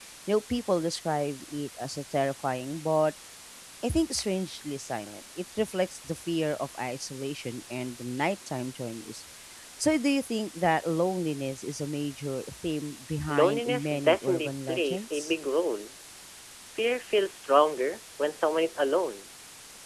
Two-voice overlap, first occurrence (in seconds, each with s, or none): 13.3 s